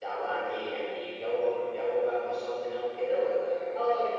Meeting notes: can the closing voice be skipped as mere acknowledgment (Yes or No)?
No